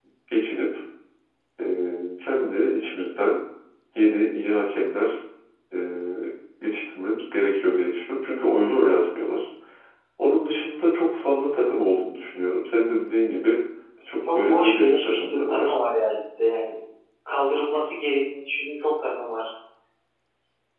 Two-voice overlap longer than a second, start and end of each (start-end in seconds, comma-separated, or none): 14.3-15.7